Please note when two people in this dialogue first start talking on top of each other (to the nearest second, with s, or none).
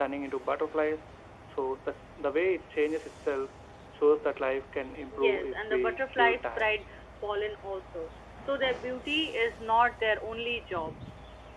5 s